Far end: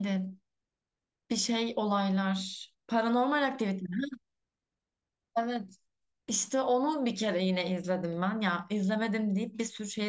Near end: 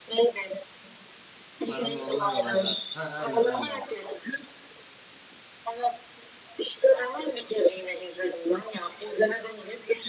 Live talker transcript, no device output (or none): Paranormal olaylar. Ha, aynen aynen.